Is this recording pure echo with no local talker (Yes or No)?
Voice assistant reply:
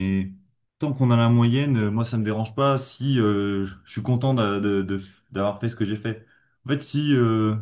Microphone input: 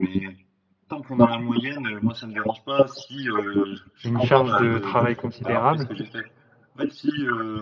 No